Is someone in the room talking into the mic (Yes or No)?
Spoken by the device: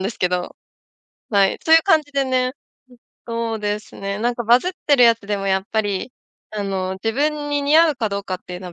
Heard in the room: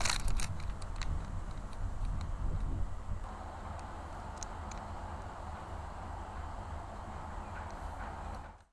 No